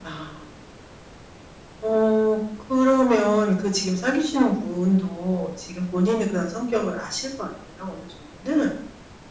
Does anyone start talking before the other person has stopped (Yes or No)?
No